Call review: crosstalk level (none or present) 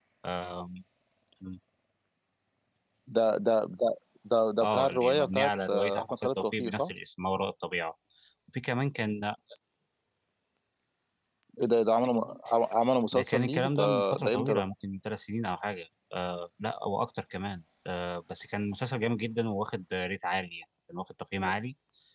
present